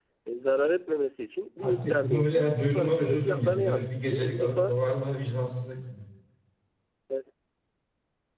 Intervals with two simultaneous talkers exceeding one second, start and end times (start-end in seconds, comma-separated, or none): 1.6-4.8